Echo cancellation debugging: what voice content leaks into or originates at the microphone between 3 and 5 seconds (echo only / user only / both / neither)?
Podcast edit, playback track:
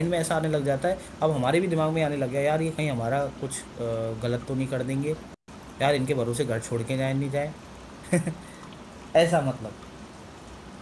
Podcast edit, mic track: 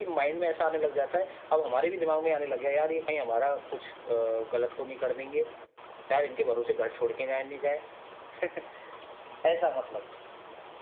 echo only